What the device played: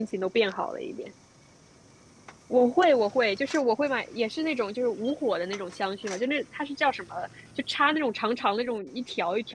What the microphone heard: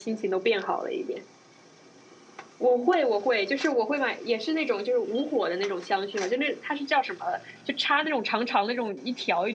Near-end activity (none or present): none